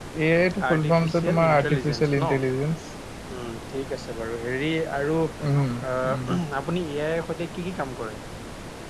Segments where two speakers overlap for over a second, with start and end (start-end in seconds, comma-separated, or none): 0.7-2.3